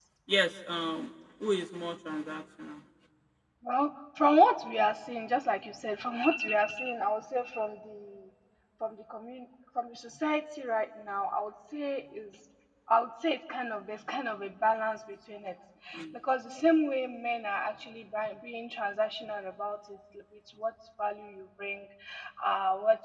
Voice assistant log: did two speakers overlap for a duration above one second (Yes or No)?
No